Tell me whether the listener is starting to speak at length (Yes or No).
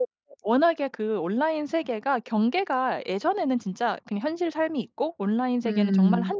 No